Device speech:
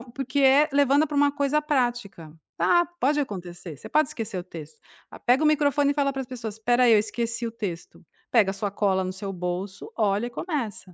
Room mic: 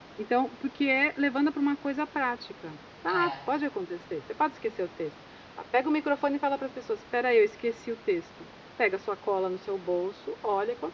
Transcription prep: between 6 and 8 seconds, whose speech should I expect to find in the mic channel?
echo only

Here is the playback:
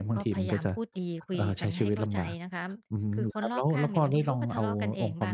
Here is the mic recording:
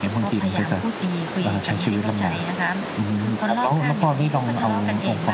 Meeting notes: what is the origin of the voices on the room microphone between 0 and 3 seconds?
echo only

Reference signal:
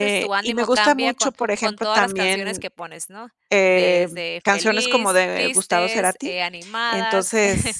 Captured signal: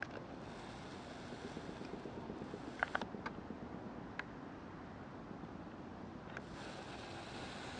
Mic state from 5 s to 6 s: neither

